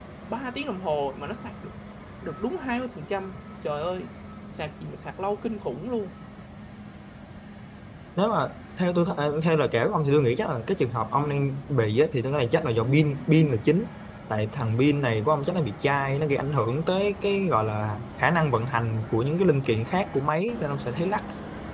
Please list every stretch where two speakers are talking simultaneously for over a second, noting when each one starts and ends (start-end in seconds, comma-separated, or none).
none